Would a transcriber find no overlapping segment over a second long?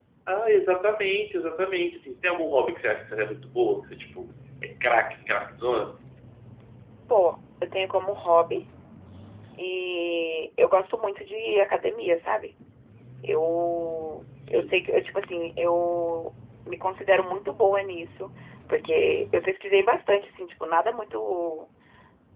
Yes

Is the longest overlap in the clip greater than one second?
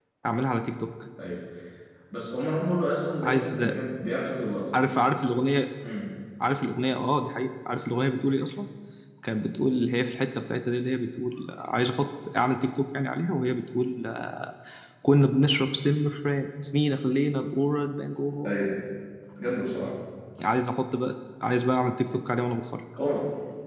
No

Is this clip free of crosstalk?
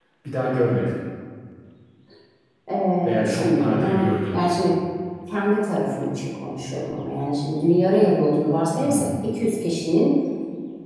No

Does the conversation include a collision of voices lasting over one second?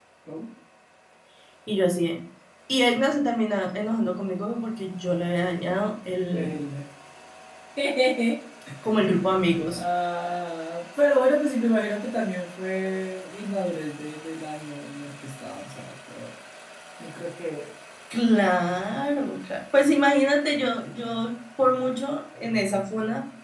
No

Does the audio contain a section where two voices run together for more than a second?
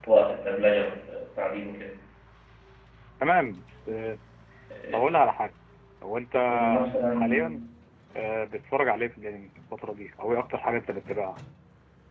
No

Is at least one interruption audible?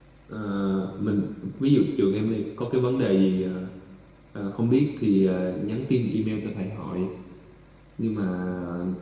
No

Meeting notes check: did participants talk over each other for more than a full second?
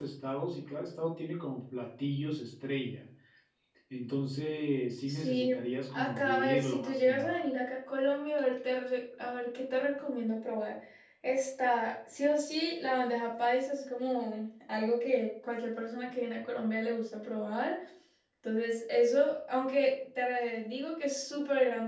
Yes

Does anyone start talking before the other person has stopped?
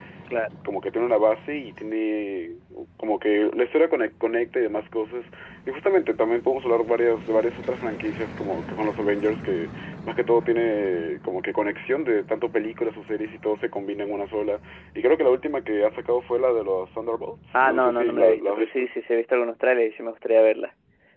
Yes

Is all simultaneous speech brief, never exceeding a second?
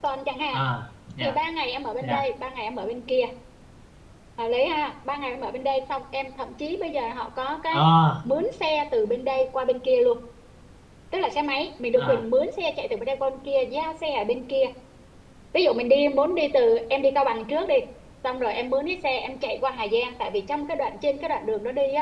Yes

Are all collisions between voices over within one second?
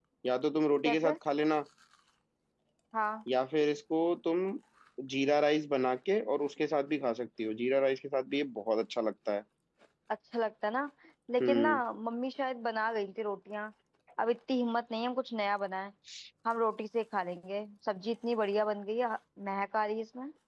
Yes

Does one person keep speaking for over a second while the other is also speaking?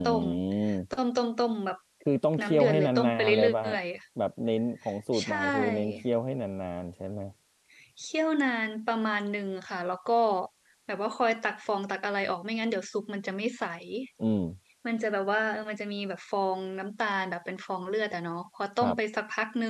Yes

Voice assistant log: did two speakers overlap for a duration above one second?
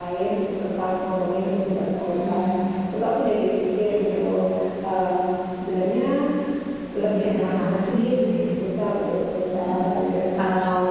Yes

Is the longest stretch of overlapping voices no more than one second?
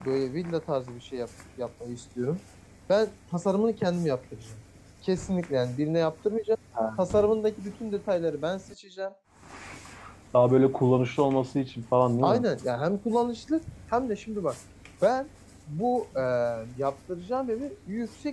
Yes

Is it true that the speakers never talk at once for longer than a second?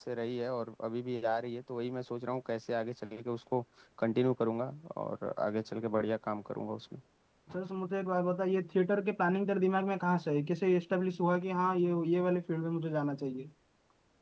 Yes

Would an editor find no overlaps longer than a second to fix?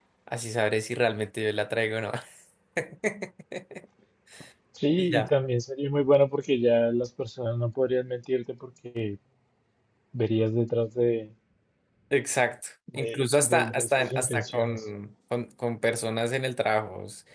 No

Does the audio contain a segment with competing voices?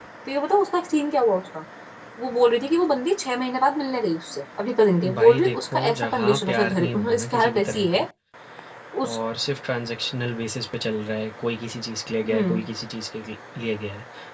Yes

